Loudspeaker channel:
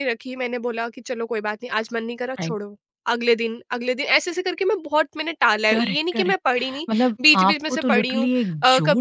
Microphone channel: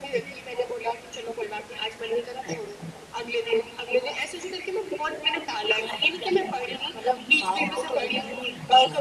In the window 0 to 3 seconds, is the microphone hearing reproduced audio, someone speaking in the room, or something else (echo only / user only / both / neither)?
echo only